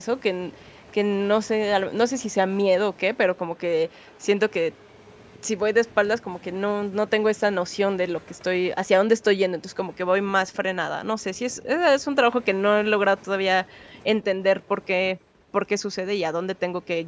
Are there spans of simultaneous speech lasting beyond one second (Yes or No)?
No